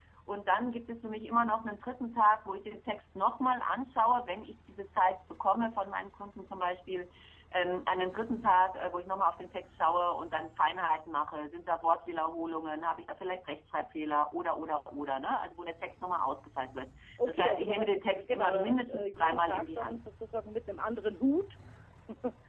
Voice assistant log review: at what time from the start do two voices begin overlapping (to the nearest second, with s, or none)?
17 s